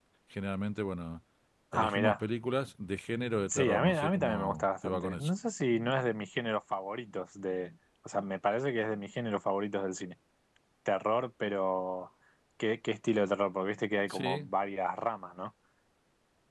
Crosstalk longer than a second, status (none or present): present